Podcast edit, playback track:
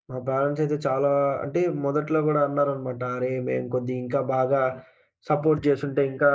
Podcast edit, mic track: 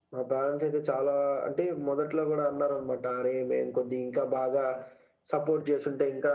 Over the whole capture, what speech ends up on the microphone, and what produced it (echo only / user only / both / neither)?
echo only